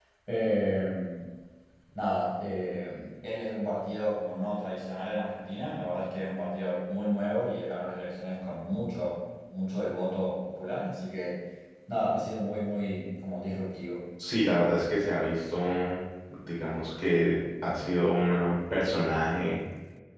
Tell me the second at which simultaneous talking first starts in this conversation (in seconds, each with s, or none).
none